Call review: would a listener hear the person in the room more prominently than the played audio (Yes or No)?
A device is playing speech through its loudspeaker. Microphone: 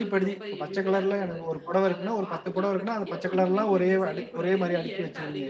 Yes